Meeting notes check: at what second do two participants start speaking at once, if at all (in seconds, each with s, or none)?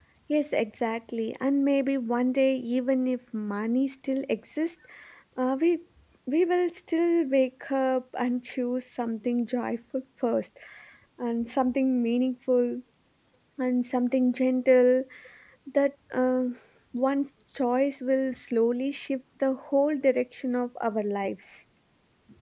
none